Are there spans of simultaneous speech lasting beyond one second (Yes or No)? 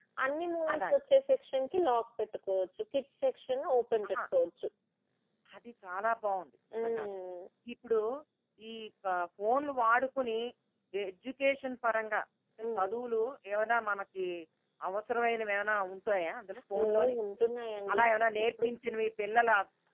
No